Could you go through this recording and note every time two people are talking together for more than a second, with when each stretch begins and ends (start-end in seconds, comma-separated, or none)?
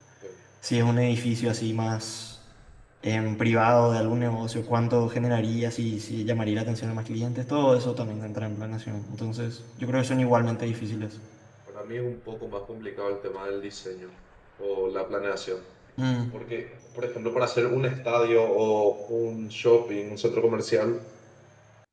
none